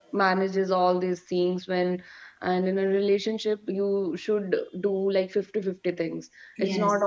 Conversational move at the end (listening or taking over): listening